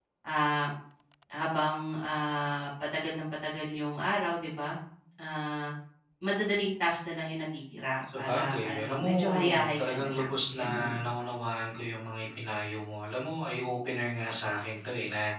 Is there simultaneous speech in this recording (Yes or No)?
Yes